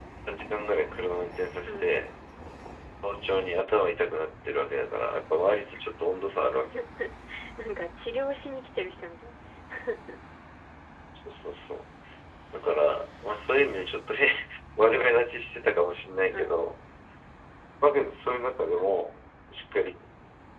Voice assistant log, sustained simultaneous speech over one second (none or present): none